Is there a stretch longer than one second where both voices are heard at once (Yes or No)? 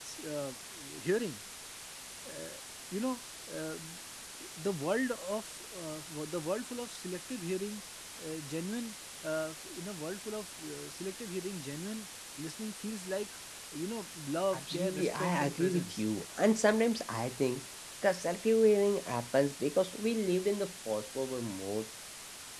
Yes